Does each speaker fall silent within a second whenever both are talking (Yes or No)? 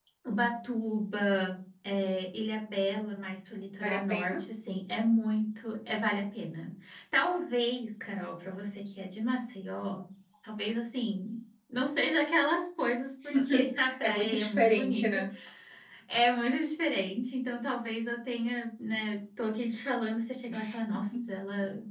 No